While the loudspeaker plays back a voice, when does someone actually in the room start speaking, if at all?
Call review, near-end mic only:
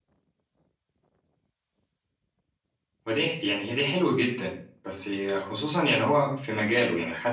3 s

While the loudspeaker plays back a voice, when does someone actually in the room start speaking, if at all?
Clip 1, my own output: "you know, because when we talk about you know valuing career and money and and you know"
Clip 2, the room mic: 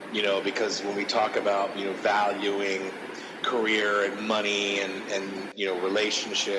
none

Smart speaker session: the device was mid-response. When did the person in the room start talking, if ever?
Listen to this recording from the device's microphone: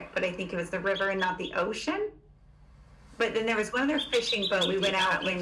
4 s

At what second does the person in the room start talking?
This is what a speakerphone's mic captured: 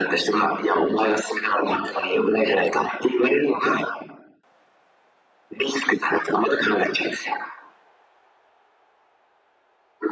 none

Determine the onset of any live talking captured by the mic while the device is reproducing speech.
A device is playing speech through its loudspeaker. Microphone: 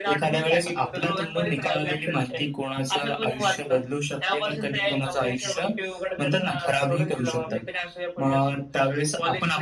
none

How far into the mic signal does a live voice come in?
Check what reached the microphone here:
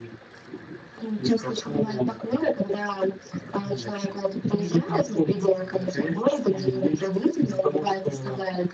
none

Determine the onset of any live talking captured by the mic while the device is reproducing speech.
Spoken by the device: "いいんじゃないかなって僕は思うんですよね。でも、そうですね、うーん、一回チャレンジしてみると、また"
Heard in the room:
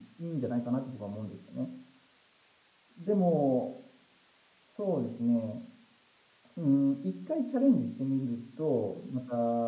none

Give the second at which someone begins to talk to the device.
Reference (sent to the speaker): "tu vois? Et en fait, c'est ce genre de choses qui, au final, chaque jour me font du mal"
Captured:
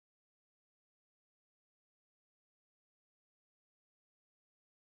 none

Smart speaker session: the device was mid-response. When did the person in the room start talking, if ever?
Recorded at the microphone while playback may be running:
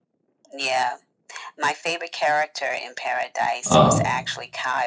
4 s

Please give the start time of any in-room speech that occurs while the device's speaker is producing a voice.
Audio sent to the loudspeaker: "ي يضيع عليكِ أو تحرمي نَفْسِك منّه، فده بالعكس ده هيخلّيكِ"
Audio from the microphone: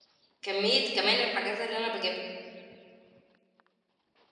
0 s

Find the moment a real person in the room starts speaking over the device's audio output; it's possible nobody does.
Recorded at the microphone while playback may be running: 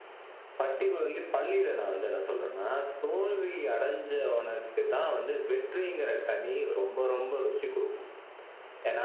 none

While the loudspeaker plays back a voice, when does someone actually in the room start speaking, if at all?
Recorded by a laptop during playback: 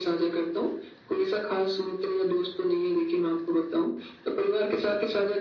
none

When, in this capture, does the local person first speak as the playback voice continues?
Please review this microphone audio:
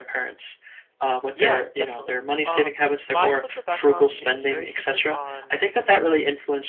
1 s

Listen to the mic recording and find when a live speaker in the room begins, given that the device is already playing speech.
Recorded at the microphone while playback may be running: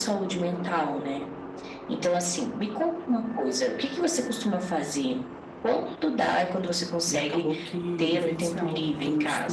7 s

